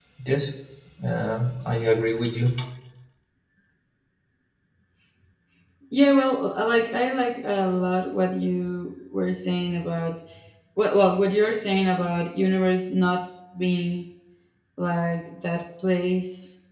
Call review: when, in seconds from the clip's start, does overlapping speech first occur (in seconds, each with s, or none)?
none